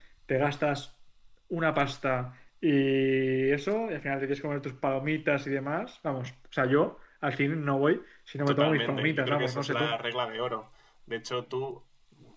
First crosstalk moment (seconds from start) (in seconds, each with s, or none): 8.4 s